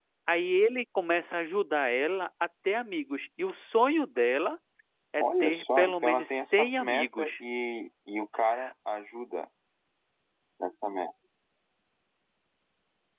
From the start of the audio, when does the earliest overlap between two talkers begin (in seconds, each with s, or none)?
5.2 s